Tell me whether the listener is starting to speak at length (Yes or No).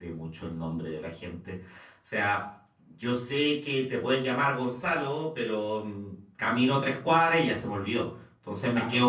No